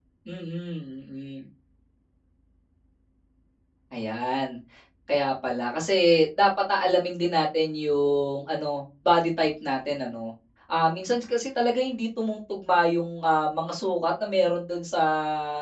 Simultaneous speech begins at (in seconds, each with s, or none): none